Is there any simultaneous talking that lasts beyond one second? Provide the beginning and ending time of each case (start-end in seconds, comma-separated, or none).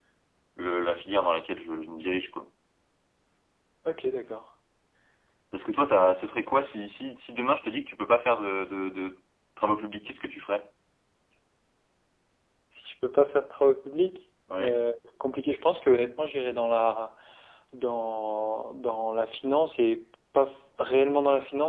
none